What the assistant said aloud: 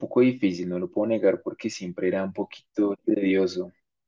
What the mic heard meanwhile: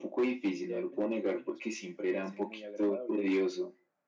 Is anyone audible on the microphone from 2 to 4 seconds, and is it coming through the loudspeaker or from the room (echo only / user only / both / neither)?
both